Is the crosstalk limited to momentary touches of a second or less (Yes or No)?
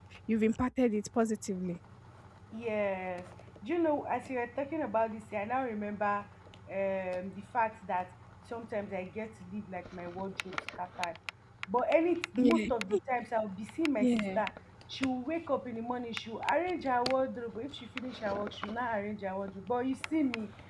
Yes